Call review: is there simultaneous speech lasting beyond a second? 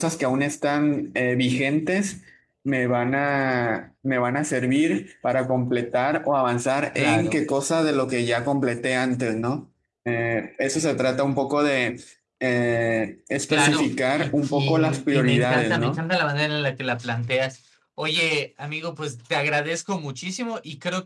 Yes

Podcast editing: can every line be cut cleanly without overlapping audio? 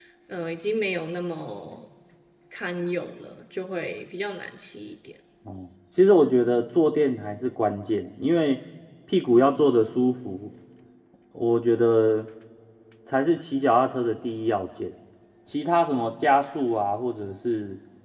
Yes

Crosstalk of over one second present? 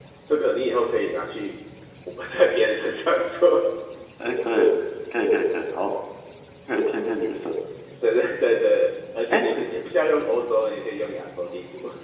No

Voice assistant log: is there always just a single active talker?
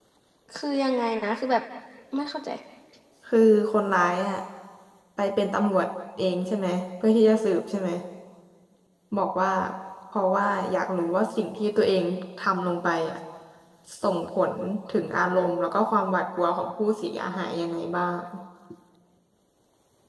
Yes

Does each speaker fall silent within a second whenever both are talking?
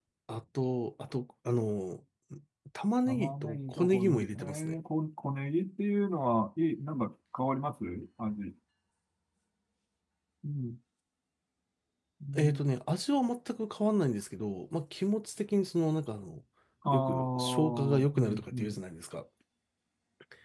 No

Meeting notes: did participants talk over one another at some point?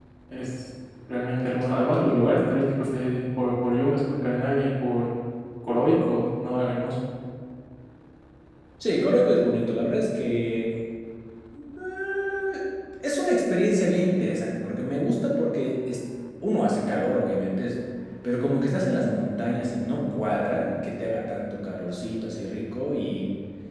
No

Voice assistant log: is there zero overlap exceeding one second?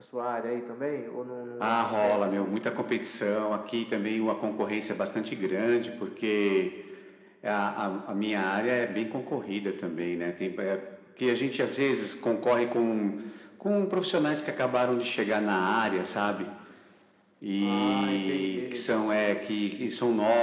No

